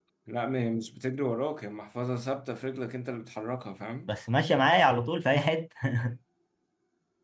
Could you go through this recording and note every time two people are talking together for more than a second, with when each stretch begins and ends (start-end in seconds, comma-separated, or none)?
none